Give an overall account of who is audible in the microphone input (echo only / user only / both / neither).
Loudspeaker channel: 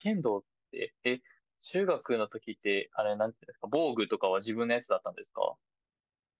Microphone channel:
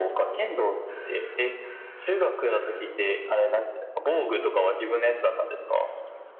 echo only